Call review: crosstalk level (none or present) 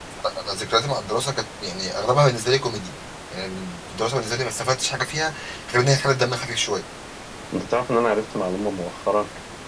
none